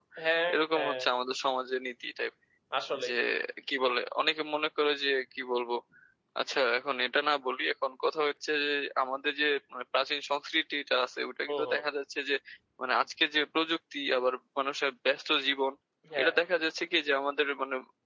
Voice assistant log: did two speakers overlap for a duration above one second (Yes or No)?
No